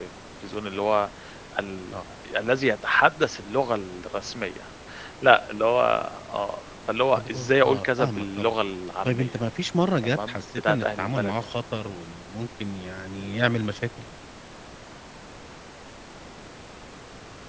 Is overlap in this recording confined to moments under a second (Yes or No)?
No